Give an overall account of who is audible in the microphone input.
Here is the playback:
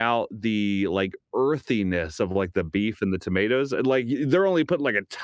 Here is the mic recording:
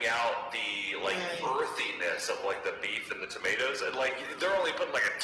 both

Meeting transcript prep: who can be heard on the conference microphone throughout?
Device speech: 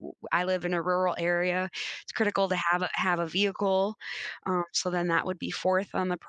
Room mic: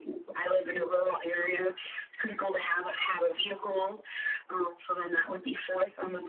echo only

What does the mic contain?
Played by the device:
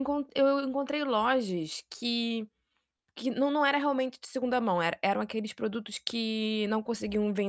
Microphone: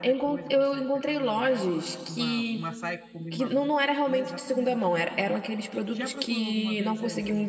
both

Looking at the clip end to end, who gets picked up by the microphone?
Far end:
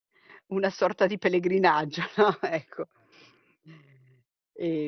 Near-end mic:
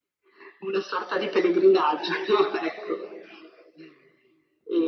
echo only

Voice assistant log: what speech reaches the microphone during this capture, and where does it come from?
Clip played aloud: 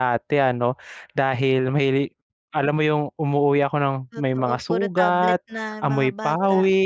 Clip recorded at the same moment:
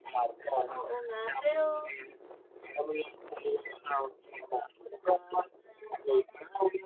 both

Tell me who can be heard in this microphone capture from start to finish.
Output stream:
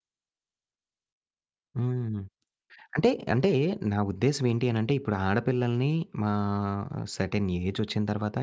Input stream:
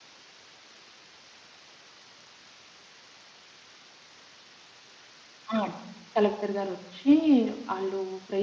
user only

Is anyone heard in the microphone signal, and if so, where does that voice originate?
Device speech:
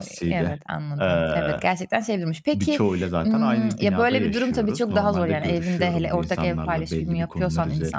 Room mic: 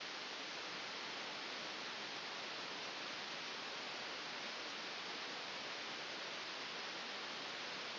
neither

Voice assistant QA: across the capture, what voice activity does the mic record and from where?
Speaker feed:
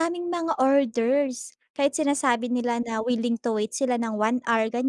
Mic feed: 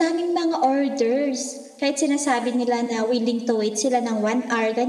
echo only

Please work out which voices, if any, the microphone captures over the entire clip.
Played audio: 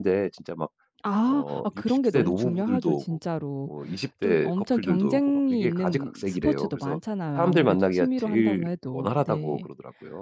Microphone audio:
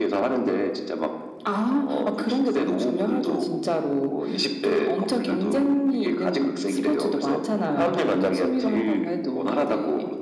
echo only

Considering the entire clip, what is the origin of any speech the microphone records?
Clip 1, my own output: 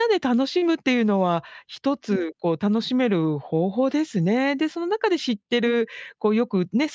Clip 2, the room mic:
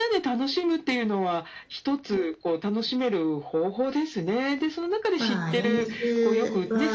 both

